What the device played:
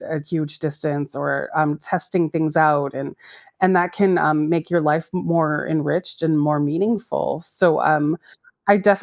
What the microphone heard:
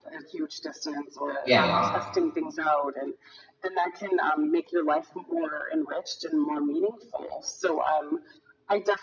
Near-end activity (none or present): present